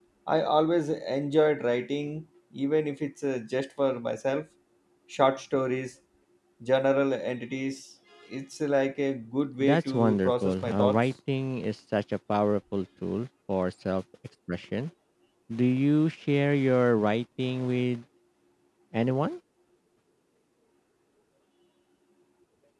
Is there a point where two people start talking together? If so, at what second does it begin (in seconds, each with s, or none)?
9.6 s